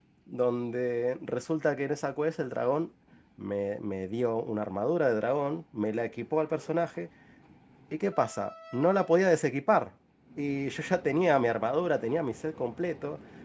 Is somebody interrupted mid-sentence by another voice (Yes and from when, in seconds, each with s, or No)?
No